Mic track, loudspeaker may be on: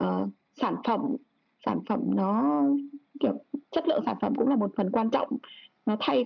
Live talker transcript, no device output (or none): none